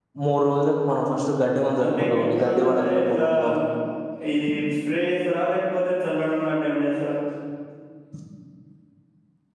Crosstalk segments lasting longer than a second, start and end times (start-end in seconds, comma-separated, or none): 1.8-3.2